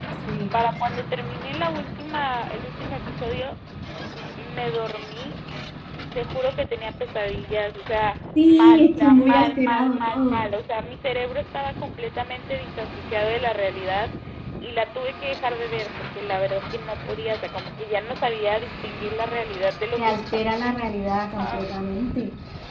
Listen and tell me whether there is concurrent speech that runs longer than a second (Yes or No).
Yes